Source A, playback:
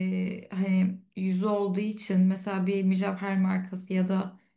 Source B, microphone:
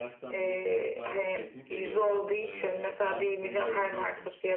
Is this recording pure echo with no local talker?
No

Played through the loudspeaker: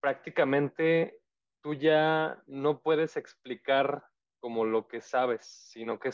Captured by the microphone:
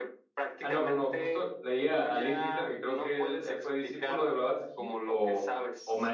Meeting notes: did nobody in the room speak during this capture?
No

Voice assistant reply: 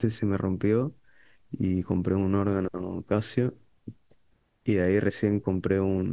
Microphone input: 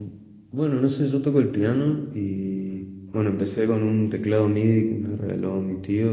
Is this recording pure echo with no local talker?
No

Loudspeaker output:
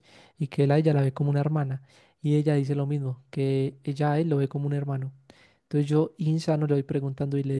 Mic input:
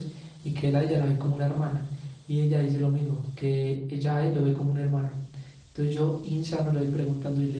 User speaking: No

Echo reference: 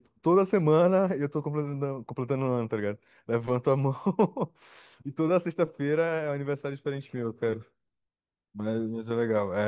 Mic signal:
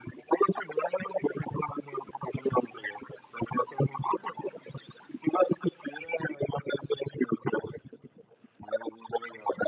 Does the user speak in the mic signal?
No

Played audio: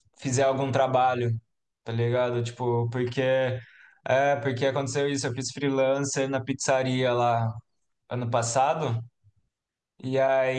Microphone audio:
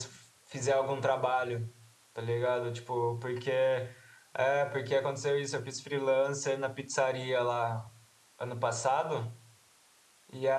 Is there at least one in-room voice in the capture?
No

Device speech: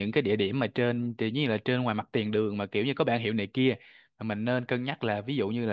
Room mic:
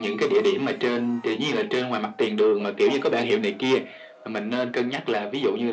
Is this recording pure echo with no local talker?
No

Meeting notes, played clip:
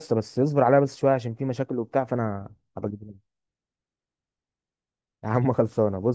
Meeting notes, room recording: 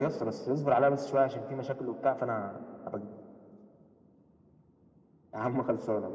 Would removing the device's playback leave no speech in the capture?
Yes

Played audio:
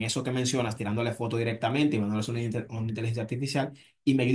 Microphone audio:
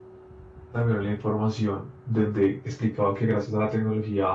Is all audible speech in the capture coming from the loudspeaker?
No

